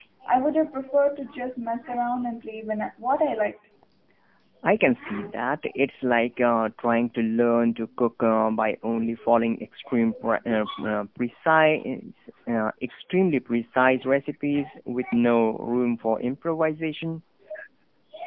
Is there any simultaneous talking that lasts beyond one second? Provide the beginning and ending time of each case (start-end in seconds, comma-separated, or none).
none